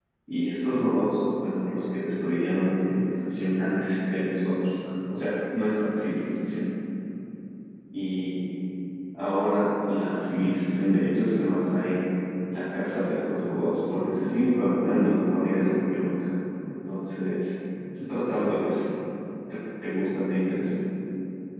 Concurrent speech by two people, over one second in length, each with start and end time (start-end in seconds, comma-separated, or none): none